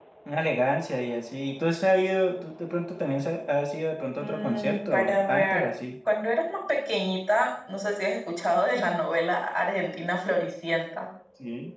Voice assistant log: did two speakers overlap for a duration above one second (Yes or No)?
Yes